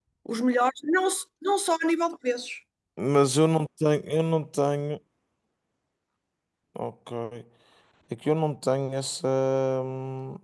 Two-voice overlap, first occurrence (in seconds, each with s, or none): none